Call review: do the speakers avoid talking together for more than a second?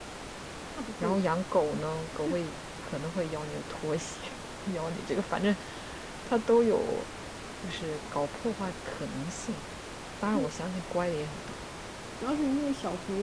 Yes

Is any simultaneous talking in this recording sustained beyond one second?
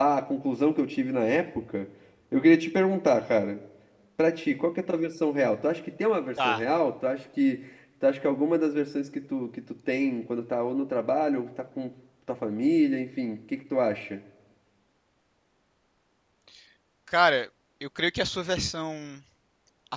No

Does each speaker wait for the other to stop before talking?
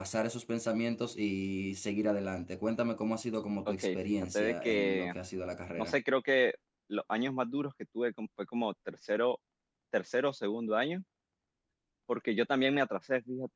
No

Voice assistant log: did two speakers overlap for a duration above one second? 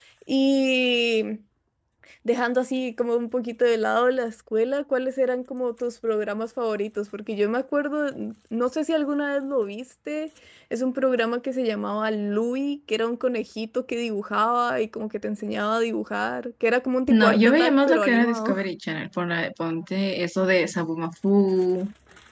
Yes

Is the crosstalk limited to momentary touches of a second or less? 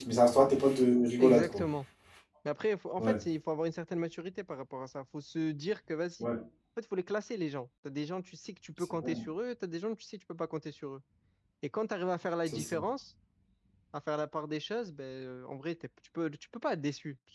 Yes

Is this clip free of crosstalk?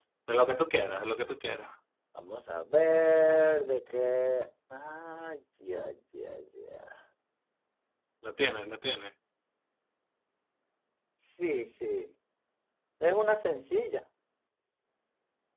Yes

